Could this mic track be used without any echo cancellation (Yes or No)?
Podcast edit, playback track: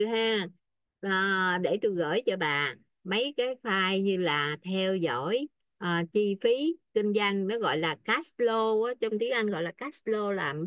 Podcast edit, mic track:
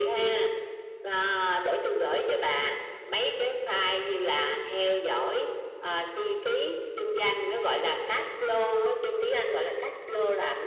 No